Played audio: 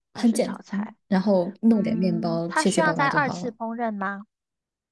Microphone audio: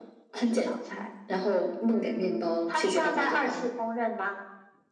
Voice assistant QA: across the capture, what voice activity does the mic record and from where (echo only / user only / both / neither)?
echo only